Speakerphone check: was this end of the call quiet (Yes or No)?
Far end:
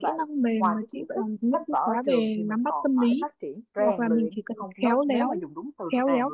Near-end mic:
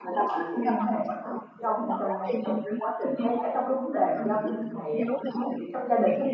No